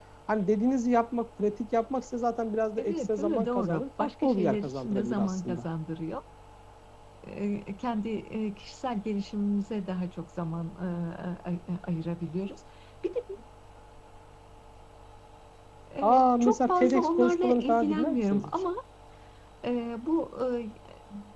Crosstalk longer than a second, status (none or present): present